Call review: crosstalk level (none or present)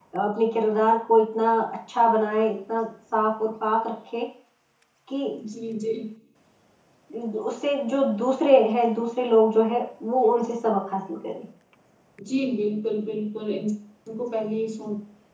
none